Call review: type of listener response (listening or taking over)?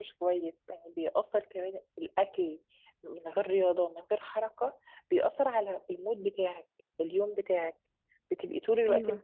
listening